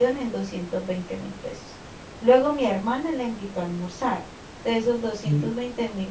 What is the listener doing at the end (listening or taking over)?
listening